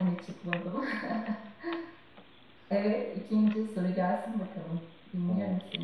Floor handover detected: Yes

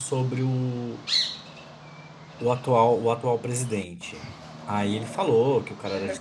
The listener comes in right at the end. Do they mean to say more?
No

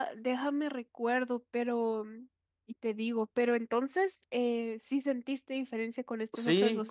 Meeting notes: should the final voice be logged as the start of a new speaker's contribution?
Yes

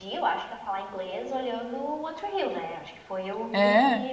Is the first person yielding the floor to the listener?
No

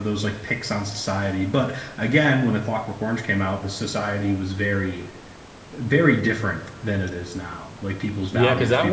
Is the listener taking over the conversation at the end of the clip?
Yes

